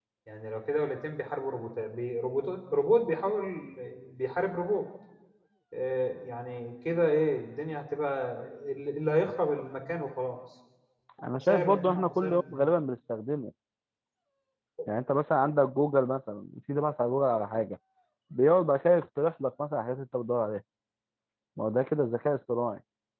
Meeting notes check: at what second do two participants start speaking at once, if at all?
11.3 s

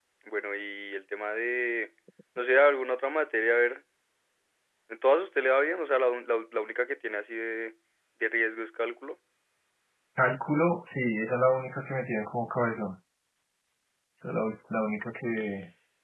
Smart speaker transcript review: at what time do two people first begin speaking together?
none

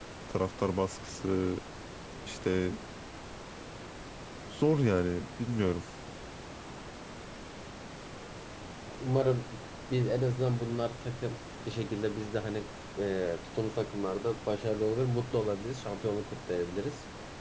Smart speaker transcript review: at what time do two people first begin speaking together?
none

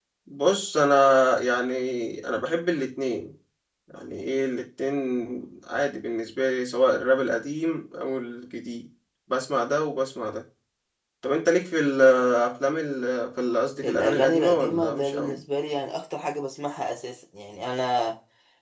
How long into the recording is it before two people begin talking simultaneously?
13.8 s

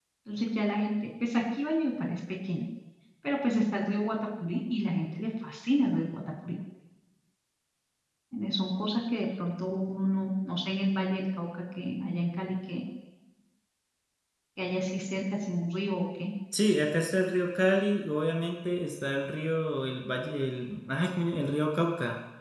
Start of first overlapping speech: none

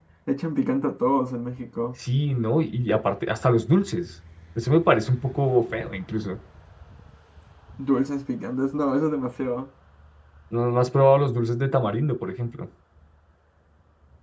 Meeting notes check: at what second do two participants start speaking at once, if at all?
none

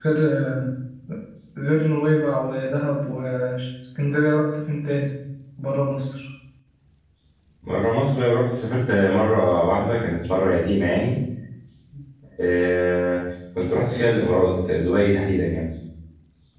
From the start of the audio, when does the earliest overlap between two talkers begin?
none

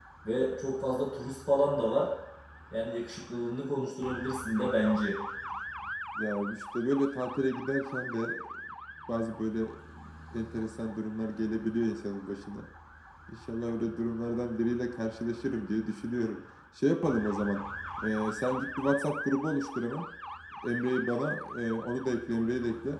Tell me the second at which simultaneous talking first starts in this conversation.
none

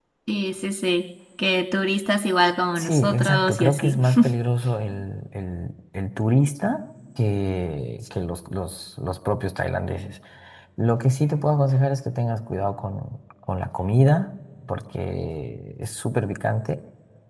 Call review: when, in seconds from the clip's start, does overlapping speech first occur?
2.8 s

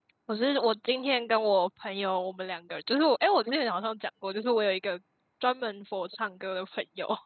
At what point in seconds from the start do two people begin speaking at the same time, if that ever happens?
none

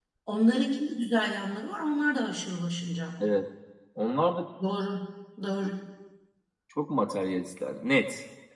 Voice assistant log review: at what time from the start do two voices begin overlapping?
none

